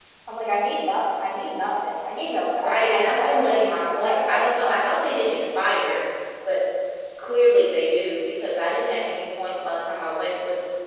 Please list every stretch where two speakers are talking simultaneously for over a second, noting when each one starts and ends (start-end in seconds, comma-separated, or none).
2.6-4.8